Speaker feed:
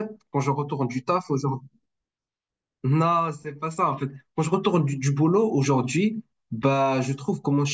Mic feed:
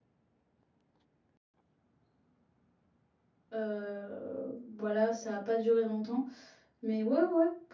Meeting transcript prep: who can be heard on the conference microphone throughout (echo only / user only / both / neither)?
user only